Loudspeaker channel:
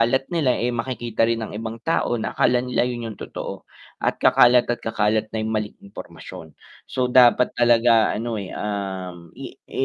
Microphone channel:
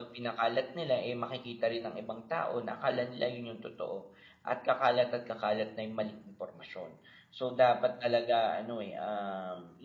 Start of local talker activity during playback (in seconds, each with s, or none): none